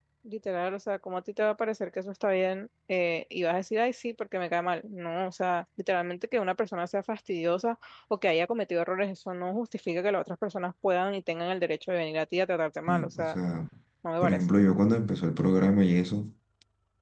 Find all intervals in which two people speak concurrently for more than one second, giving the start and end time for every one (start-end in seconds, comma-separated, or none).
none